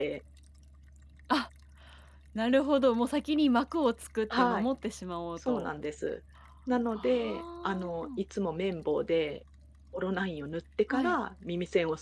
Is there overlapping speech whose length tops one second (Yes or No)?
Yes